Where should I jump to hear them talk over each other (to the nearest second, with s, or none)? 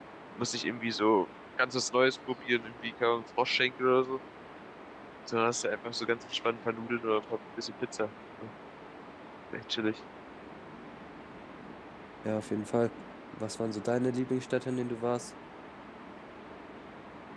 none